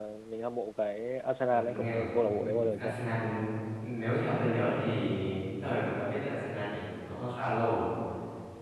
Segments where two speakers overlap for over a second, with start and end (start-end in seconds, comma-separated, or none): 1.5-2.9